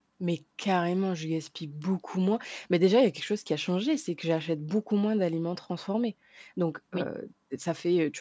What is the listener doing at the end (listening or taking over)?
listening